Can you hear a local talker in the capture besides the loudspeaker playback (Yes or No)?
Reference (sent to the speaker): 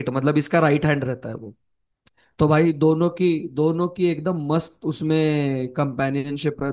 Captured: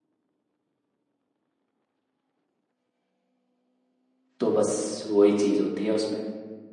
Yes